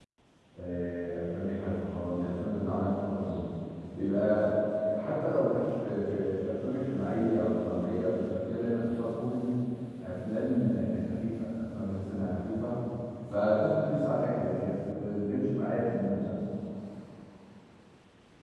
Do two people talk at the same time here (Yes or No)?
No